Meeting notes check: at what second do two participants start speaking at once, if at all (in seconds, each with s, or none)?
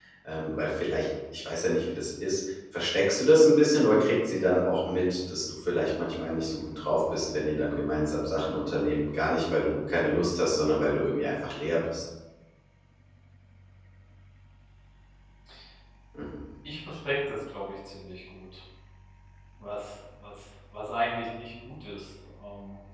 none